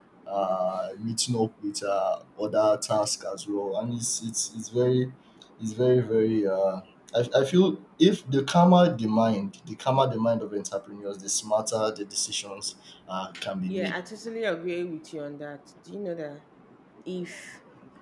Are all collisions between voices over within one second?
Yes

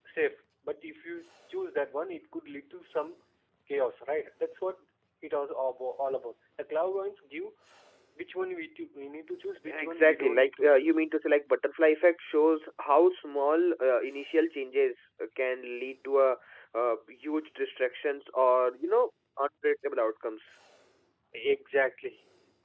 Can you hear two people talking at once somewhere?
Yes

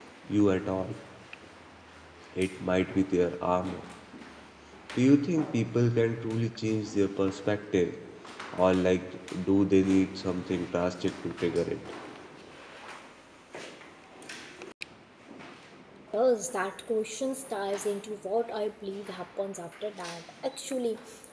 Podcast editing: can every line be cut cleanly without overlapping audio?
Yes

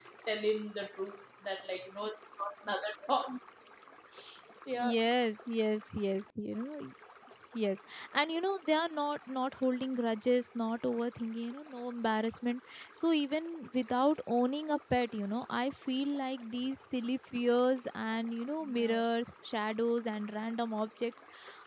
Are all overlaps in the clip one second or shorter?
Yes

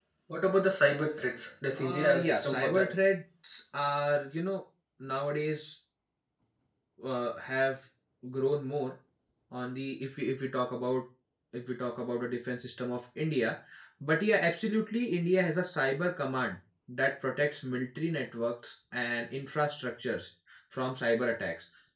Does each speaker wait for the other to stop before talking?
No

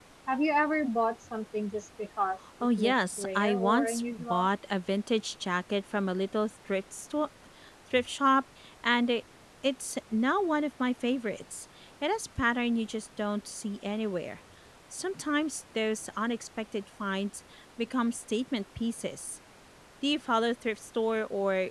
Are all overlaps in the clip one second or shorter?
No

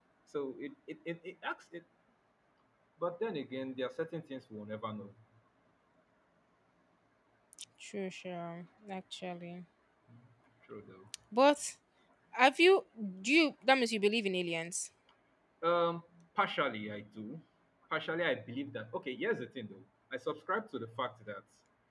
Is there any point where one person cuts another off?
No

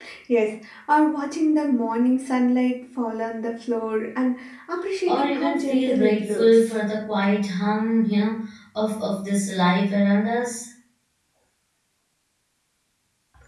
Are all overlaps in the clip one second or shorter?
No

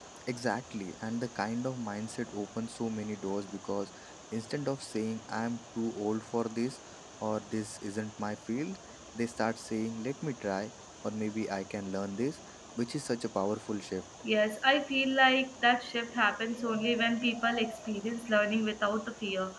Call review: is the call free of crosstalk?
Yes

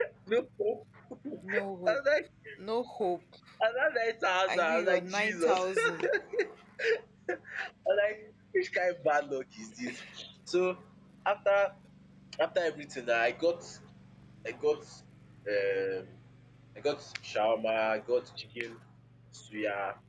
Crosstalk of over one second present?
Yes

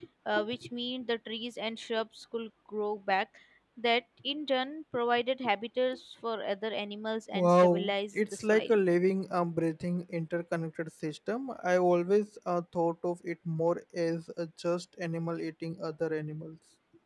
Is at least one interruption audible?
Yes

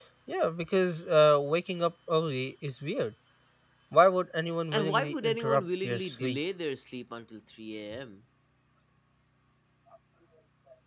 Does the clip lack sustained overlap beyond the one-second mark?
No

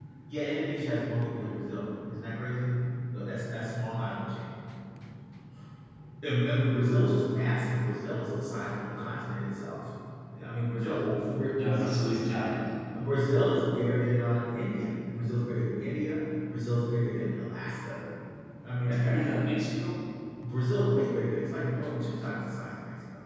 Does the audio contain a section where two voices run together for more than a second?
Yes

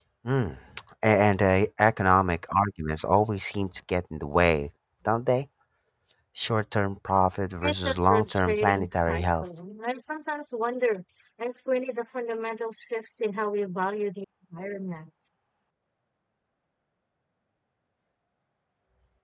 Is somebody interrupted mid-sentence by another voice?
Yes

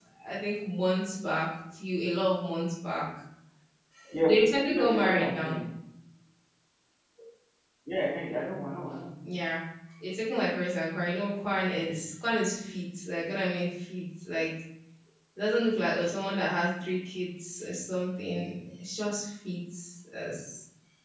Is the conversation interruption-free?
No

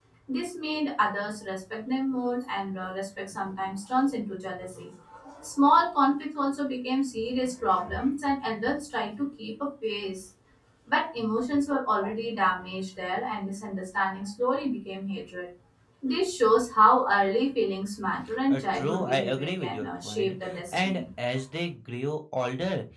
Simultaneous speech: Yes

